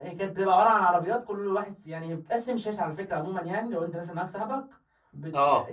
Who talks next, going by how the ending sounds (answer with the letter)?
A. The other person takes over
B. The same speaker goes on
B